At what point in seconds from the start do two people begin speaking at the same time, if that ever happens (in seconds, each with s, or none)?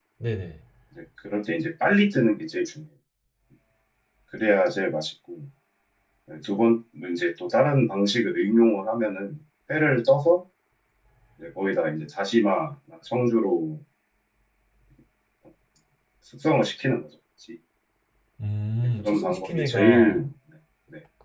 19.0 s